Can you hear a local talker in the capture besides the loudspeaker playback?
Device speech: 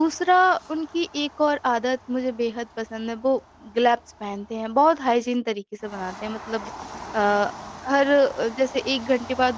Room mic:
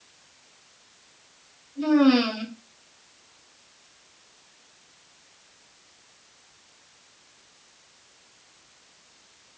Yes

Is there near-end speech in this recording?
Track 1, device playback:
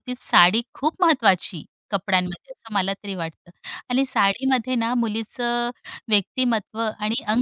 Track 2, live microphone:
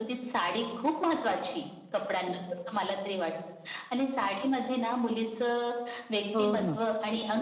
Yes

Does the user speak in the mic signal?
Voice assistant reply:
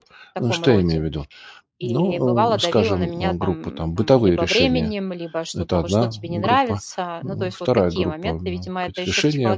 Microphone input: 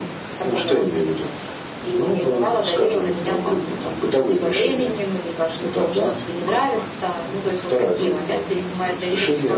No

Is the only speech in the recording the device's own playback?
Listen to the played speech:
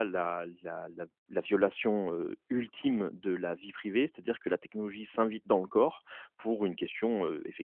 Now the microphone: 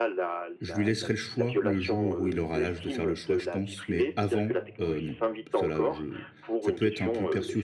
No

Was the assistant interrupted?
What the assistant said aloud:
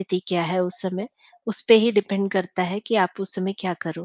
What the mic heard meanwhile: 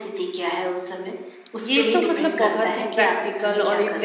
Yes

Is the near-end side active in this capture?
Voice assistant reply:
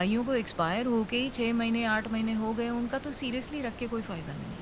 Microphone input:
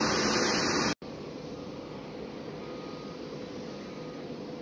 No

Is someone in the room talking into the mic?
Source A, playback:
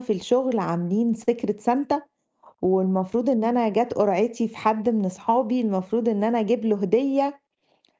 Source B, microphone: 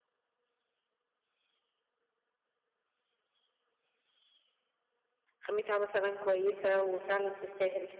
Yes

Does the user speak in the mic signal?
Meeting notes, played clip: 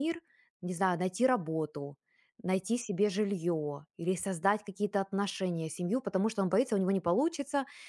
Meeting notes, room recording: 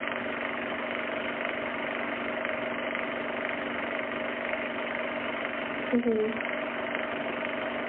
Yes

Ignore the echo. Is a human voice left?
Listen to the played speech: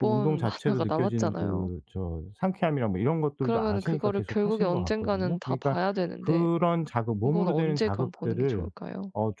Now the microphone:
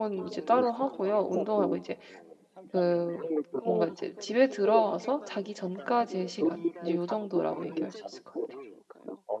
Yes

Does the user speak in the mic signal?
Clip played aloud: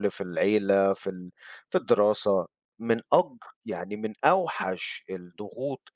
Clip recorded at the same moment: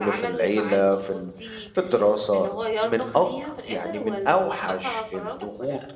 Yes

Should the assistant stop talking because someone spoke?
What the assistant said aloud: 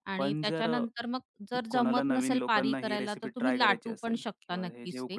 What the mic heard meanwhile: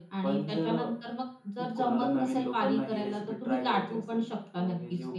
No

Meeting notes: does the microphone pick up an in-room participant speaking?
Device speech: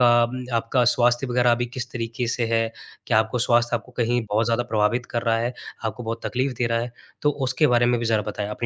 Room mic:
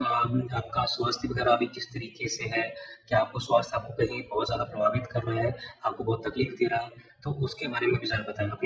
No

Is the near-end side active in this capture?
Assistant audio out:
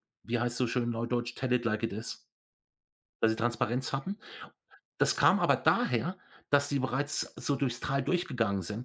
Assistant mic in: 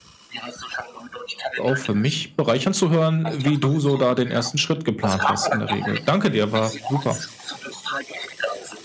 Yes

